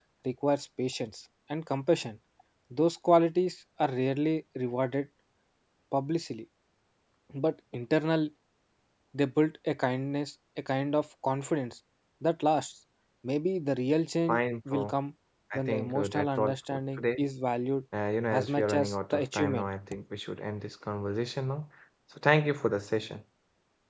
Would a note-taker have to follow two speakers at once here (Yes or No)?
Yes